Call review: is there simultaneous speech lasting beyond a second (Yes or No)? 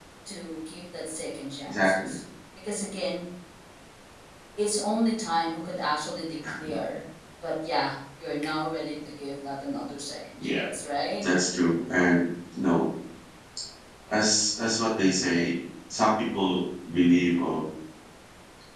No